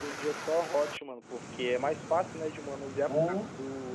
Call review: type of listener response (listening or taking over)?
listening